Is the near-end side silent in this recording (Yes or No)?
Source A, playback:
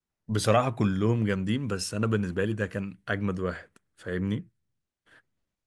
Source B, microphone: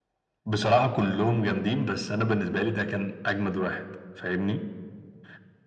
Yes